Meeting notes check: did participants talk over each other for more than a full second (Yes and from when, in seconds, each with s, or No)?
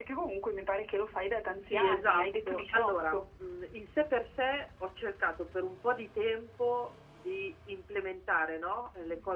Yes, from 1.6 s